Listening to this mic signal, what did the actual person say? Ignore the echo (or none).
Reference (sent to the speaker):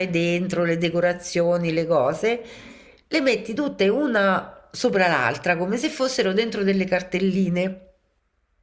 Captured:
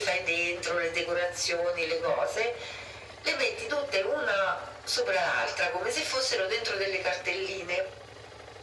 none